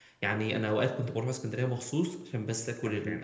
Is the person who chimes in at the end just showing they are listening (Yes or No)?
Yes